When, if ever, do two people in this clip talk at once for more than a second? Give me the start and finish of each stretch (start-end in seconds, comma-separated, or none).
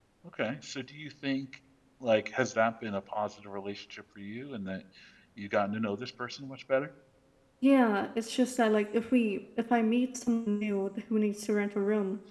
none